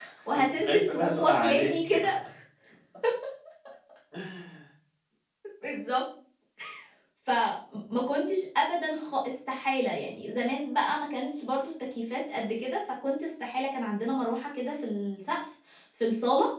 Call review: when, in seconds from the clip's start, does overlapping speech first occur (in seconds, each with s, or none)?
0.6 s